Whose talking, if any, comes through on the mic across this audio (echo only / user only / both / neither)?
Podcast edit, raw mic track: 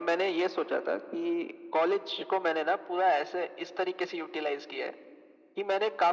echo only